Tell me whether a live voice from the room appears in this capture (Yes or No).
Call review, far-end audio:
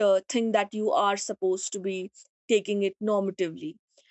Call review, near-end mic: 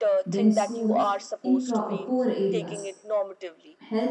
Yes